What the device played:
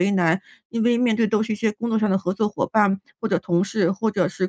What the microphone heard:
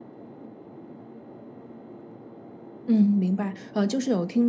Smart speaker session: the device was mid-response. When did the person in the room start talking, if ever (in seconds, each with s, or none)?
2.9 s